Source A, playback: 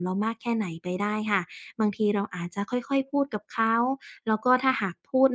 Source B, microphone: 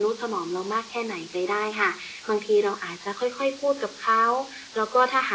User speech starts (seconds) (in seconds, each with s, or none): none